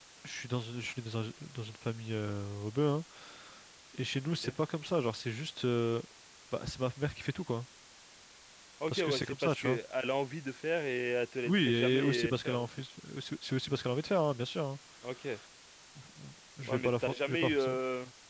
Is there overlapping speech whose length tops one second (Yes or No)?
Yes